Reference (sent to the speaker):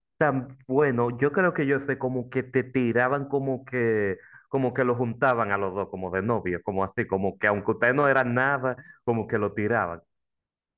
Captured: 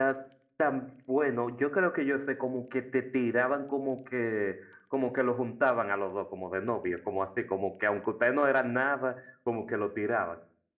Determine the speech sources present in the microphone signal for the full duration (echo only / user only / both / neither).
echo only